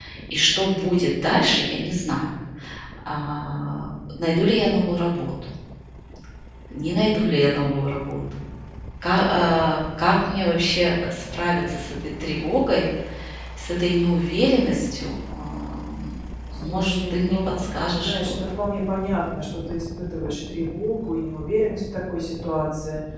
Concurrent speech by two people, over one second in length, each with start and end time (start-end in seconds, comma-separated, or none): 16.5-18.4